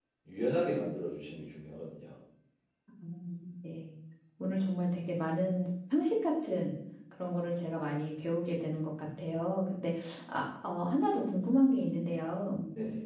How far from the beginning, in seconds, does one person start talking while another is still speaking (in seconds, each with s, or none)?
none